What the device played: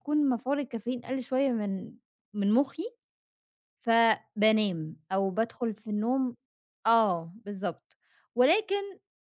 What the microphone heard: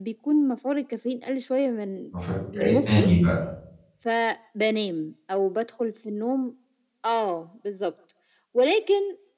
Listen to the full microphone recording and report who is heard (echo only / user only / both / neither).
both